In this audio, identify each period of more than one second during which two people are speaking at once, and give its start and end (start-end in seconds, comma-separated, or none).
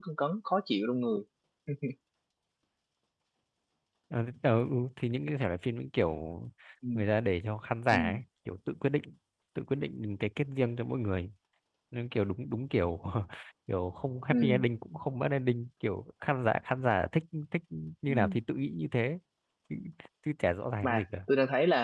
none